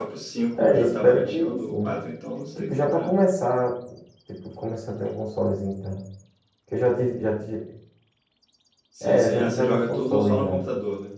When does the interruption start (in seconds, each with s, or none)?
0.6 s